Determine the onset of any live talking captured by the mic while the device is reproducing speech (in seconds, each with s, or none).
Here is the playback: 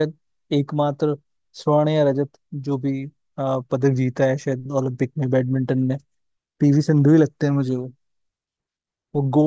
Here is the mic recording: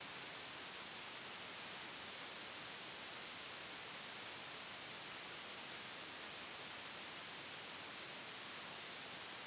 none